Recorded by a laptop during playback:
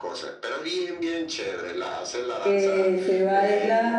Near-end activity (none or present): present